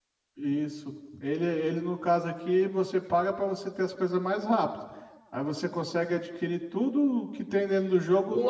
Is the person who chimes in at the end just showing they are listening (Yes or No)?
No